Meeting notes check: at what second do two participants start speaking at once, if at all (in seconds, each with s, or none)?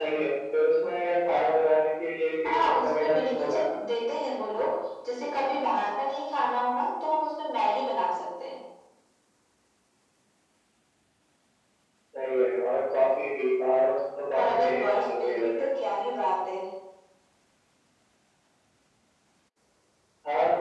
2.5 s